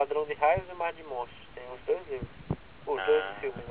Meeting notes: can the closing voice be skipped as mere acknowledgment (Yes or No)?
Yes